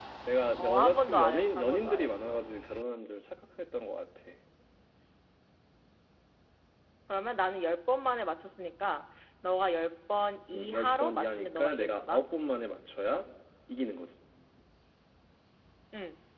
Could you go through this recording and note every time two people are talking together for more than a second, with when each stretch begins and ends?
0.6-2.4, 10.5-12.2

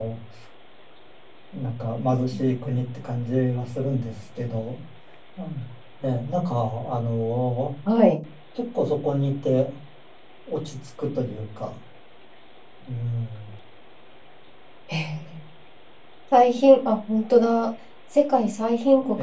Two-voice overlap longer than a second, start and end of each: none

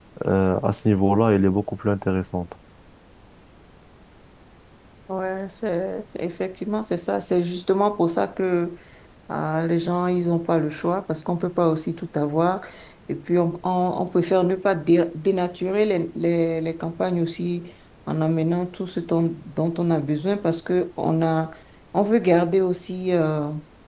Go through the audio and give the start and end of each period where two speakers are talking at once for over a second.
none

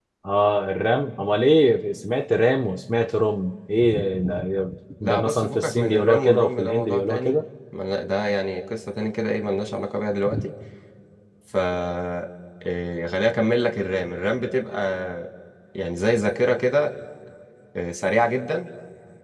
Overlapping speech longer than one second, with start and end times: 5.0-7.3

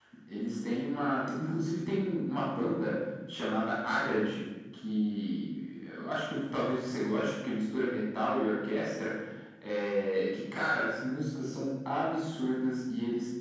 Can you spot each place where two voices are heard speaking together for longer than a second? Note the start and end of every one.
none

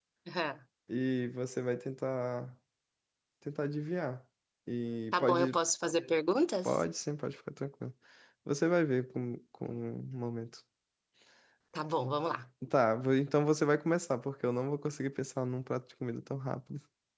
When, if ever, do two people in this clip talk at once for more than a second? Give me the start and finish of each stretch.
none

